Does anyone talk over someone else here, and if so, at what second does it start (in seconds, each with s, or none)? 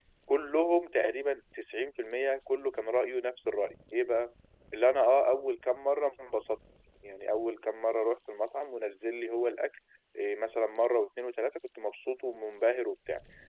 none